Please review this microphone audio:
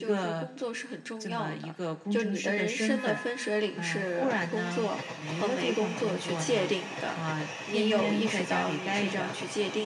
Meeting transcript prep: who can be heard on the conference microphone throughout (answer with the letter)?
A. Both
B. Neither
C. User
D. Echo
D